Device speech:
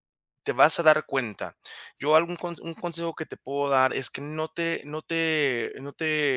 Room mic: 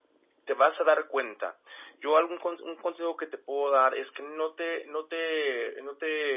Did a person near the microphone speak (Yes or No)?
No